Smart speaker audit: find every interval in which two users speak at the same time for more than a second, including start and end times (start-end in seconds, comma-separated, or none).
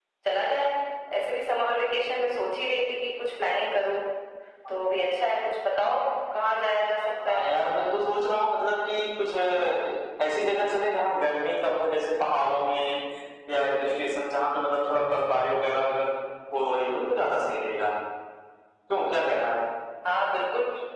none